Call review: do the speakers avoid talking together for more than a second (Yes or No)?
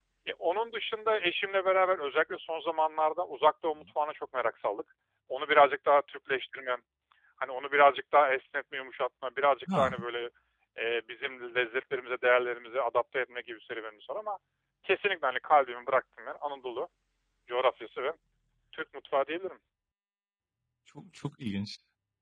Yes